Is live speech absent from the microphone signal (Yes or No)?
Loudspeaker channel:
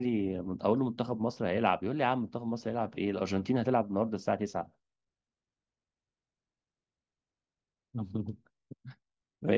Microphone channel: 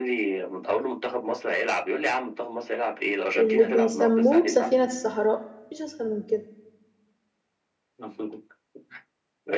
No